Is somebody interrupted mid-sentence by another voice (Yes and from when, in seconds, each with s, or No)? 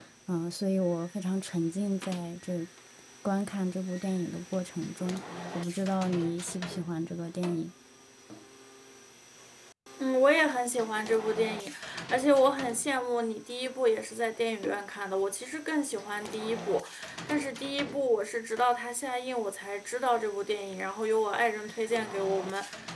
No